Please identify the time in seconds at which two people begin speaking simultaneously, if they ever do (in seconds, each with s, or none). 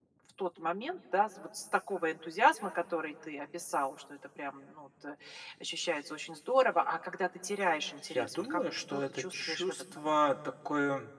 8.1 s